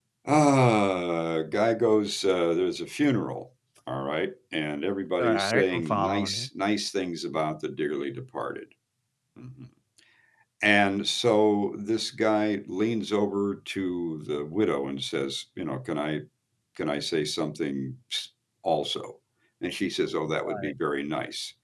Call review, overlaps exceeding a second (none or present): present